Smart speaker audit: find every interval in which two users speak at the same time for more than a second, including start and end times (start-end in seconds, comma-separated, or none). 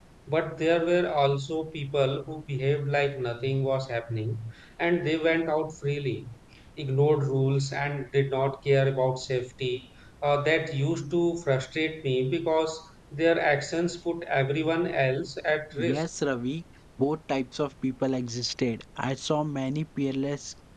none